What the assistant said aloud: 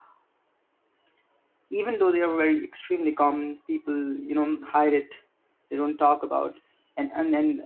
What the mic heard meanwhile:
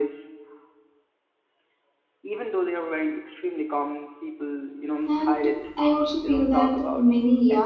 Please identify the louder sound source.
user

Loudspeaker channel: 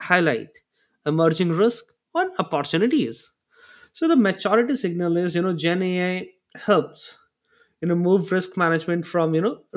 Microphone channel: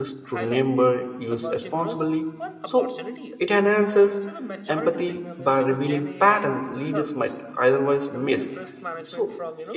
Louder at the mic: user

